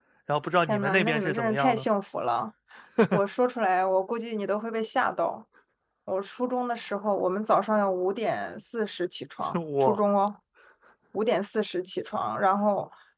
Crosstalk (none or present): present